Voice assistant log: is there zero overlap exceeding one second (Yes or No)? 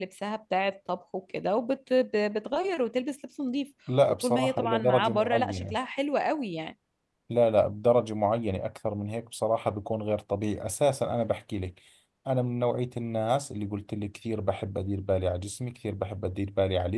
No